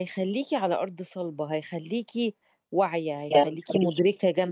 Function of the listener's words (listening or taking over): listening